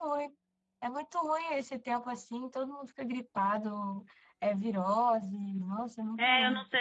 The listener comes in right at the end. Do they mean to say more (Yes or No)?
Yes